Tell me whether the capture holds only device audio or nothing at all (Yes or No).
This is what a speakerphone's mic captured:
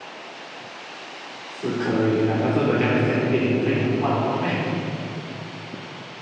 No